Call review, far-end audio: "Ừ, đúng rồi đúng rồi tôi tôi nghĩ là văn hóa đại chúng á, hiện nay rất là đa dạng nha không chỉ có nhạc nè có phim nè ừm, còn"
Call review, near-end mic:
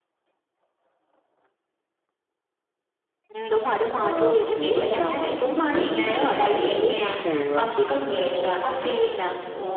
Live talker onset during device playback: 3.9 s

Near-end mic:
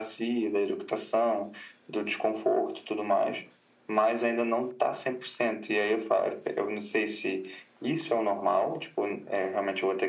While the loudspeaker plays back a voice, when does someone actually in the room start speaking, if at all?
none

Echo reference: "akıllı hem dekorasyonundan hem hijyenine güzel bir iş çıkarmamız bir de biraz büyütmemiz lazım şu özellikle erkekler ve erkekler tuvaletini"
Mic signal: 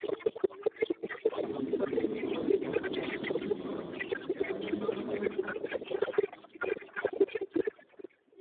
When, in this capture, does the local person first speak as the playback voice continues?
1.3 s

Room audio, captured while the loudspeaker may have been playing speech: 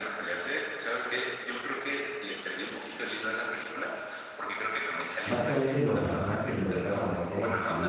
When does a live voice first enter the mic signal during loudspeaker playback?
5.2 s

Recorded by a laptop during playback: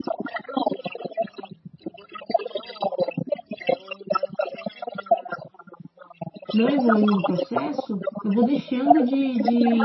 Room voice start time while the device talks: 6.5 s

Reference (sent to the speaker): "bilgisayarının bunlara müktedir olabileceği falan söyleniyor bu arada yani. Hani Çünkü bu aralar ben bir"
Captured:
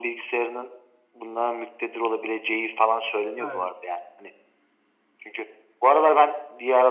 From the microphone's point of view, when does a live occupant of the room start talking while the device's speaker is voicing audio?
3.4 s

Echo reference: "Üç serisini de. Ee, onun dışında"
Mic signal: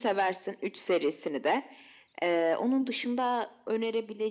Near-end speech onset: none

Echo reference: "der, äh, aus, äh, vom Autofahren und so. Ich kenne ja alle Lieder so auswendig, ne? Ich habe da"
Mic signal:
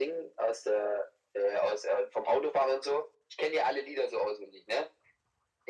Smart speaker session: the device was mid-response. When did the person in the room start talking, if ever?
none

